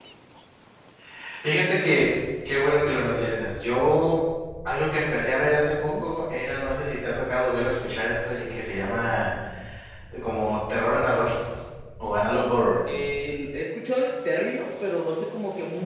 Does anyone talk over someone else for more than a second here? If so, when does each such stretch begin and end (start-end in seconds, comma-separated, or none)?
none